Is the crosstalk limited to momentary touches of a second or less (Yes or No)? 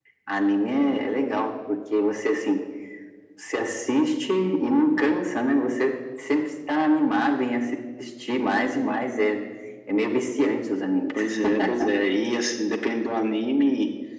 Yes